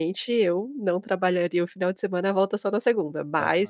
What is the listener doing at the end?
listening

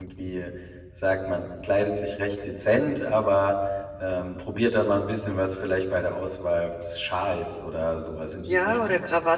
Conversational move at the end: taking over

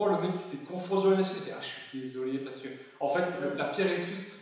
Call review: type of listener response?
listening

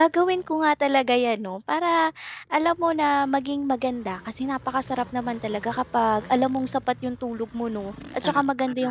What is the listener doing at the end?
listening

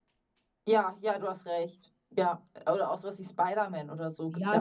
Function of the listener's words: taking over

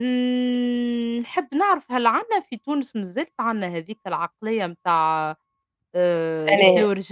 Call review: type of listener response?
listening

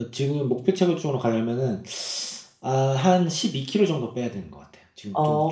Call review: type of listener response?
taking over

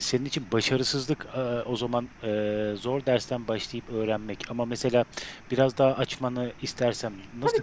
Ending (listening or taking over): taking over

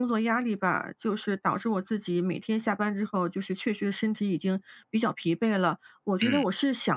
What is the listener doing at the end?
listening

